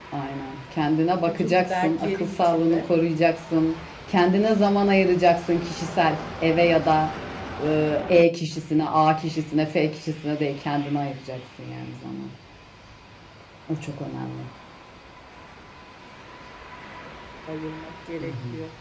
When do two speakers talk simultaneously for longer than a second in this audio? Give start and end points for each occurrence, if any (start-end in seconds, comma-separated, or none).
1.2-2.9